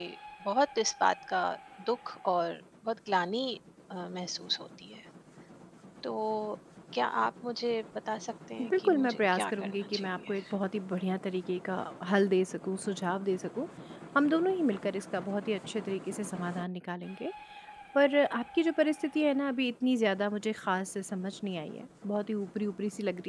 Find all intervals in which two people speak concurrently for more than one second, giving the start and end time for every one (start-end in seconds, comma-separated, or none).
8.8-10.3